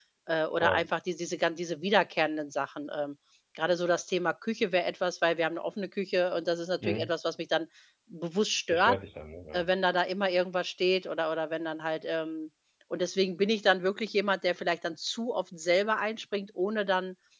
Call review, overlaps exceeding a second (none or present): none